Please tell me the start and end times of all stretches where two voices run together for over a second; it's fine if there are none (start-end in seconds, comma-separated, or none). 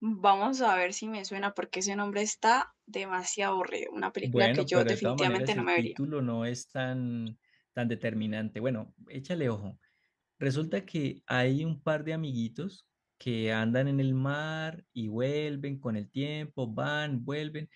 4.2-6.0